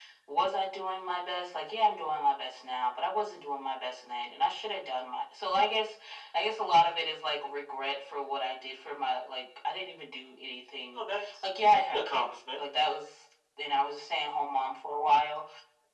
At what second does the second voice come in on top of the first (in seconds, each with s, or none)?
10.9 s